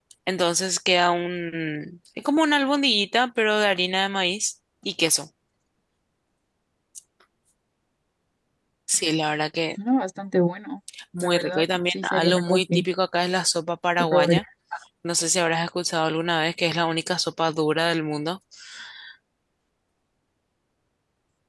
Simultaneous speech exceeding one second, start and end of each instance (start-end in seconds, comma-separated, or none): 11.2-12.8